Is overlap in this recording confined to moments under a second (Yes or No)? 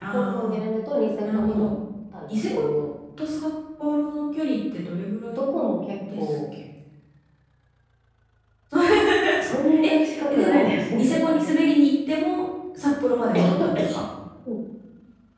No